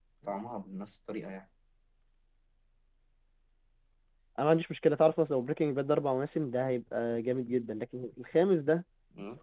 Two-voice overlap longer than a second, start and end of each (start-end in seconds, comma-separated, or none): none